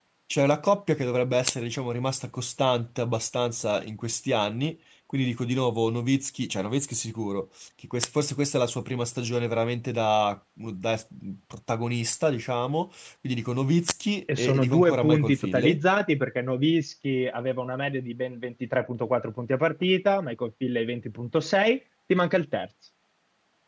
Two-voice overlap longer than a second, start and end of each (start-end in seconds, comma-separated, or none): 14.4-15.8